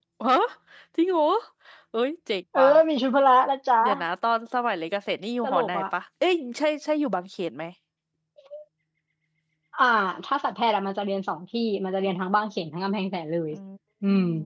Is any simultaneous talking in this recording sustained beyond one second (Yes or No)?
No